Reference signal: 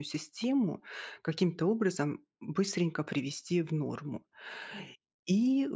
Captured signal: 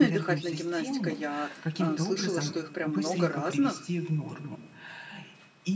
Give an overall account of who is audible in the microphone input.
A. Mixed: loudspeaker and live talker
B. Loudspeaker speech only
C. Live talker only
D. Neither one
A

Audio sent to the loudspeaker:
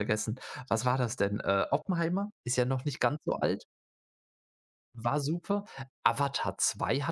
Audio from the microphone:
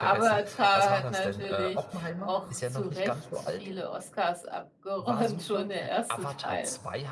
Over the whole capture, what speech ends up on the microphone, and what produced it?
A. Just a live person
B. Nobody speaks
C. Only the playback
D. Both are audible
D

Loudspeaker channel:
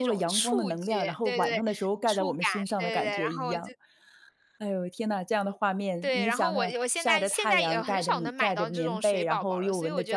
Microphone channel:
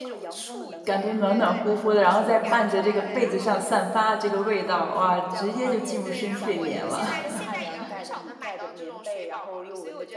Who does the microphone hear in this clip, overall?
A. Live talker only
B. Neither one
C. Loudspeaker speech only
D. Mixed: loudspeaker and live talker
D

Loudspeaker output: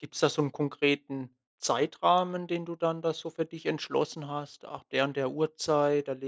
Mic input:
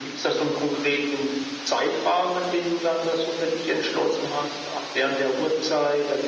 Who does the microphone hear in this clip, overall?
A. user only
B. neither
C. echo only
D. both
C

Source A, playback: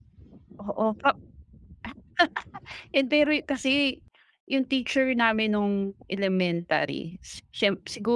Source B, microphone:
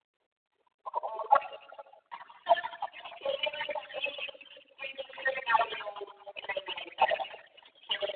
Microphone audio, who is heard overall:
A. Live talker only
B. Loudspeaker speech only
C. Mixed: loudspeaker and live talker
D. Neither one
B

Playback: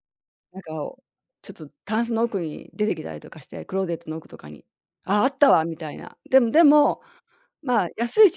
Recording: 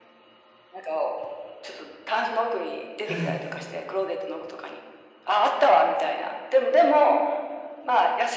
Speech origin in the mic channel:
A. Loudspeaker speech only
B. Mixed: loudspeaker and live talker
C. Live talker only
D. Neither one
B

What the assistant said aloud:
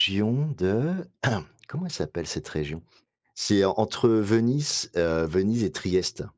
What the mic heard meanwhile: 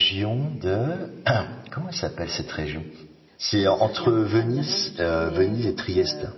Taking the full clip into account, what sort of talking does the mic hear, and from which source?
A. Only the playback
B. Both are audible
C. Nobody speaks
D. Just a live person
B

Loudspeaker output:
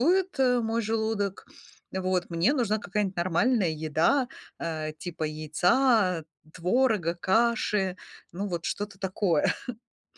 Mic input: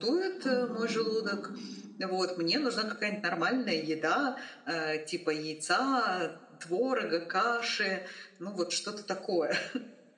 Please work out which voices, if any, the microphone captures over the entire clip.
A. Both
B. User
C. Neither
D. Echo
A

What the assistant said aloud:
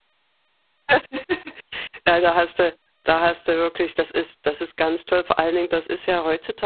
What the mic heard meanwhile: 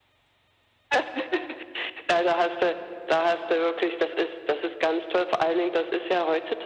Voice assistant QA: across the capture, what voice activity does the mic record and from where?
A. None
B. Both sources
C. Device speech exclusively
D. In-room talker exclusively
C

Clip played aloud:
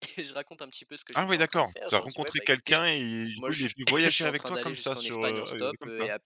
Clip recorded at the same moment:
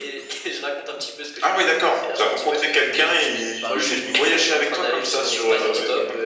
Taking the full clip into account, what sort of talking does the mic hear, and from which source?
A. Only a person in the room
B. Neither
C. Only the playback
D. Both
D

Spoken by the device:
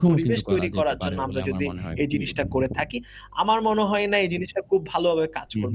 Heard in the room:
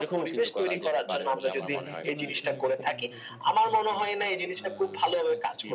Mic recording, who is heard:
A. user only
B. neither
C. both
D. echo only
C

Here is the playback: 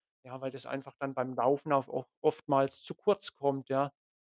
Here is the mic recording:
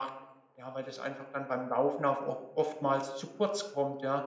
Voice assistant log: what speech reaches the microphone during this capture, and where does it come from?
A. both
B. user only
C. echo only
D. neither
C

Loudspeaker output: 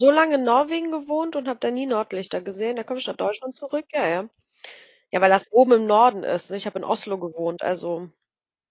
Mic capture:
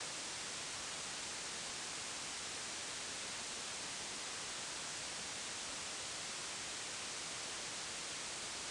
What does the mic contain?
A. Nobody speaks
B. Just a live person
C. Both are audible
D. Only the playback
A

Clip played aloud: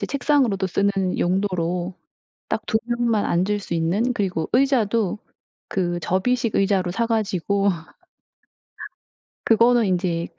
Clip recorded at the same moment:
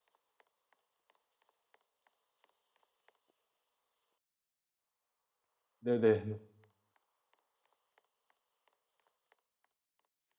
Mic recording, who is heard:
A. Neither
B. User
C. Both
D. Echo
B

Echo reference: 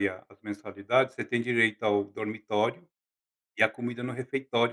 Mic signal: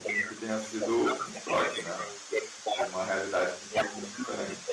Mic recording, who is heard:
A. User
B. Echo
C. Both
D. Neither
C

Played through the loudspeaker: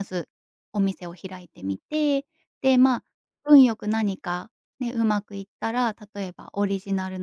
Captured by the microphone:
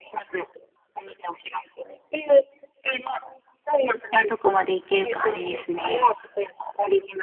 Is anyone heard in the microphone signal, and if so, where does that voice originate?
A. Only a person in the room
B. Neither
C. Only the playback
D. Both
D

